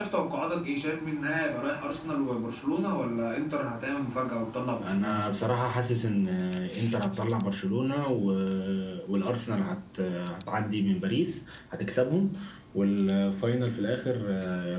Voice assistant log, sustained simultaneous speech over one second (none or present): none